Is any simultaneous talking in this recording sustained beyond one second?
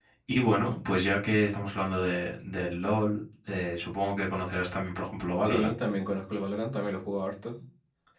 No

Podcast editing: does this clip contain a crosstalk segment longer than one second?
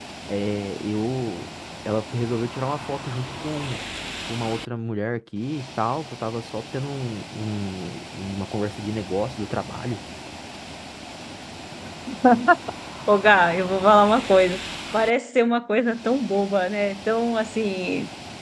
No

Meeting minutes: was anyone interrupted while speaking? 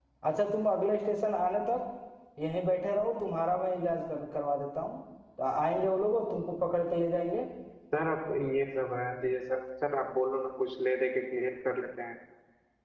No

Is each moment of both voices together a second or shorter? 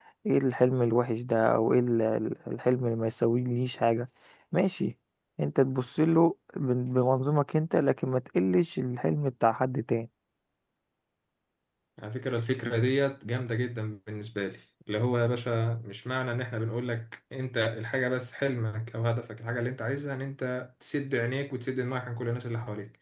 Yes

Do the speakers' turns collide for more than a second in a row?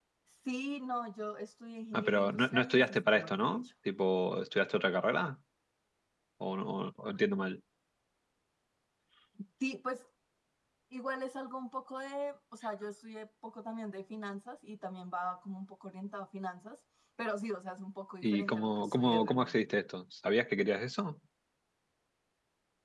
Yes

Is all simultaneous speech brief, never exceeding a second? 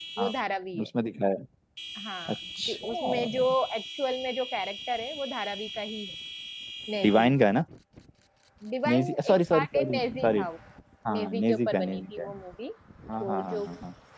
No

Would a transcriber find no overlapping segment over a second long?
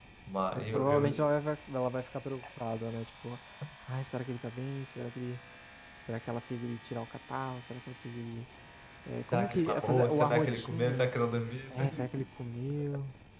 No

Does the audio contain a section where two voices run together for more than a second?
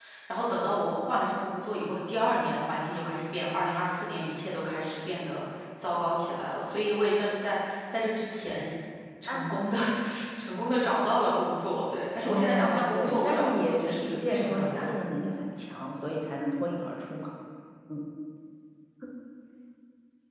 Yes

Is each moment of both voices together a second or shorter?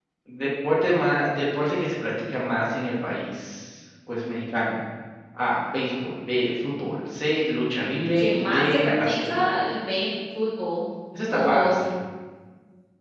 No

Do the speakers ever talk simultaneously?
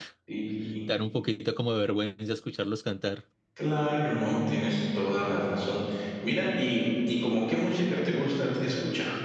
No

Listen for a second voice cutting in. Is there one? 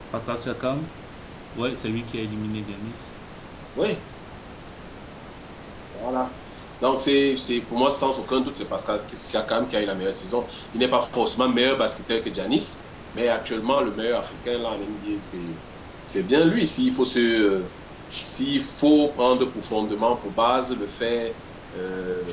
No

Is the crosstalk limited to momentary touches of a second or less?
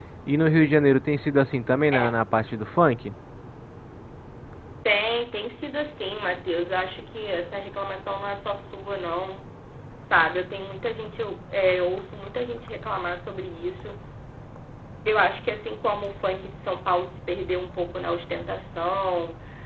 Yes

